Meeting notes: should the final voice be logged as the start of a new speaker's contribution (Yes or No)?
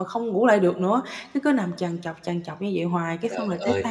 No